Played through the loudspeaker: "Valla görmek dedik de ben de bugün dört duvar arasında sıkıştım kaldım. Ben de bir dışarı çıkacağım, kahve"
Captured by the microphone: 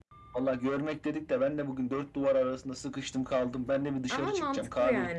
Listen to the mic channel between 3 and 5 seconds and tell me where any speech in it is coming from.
both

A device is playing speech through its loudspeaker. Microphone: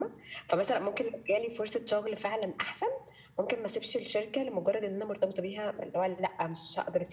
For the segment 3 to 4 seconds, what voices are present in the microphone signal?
echo only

